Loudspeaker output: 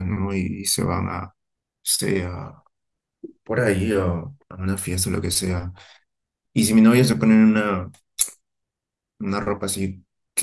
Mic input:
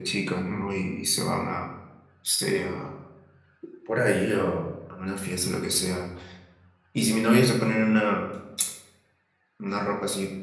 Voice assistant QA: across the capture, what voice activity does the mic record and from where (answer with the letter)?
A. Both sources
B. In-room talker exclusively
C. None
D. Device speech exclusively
D